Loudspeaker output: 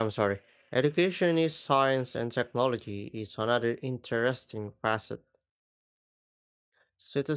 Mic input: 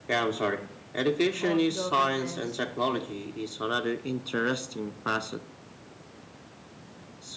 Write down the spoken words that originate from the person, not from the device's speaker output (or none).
of governance.